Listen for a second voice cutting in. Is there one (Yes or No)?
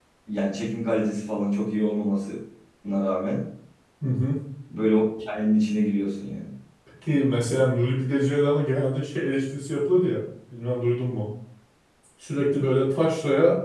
No